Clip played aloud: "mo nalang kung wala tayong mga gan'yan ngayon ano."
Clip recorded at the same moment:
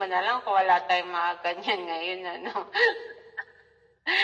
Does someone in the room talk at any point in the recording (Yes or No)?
No